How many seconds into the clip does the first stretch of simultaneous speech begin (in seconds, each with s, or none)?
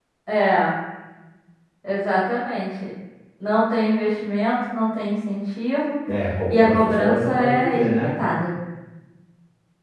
6.5 s